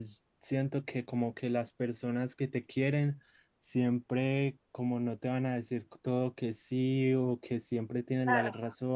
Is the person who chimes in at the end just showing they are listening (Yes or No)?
Yes